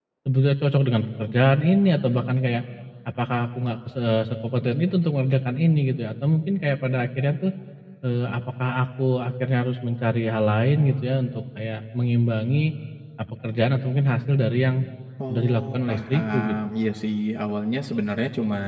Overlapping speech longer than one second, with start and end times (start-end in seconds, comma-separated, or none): 15.3-16.6